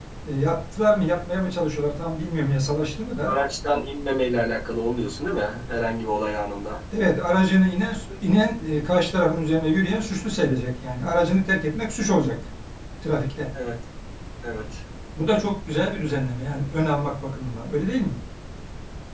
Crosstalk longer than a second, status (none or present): none